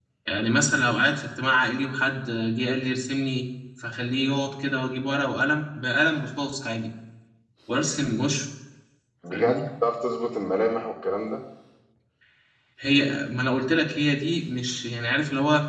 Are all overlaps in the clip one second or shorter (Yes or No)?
Yes